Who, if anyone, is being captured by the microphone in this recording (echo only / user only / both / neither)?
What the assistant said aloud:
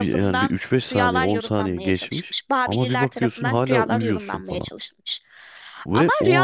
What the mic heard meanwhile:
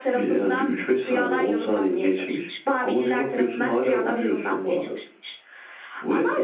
echo only